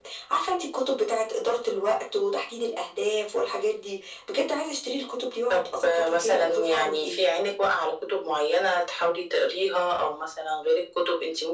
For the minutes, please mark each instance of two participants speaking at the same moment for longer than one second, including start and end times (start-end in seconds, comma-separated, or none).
5.5-7.2